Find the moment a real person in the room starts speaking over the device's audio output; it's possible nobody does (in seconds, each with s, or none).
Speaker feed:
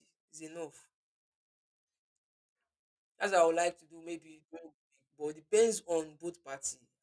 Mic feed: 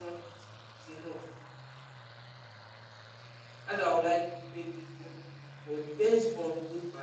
none